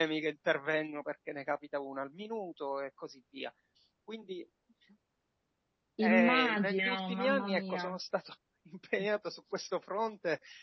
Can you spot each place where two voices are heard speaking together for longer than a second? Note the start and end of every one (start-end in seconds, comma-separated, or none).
6.1-8.0